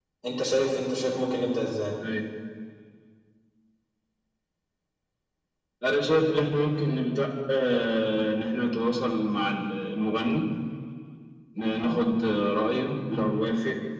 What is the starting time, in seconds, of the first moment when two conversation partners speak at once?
none

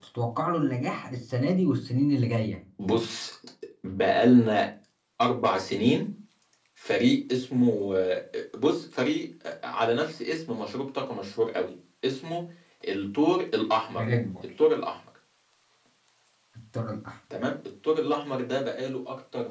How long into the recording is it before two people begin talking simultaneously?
none

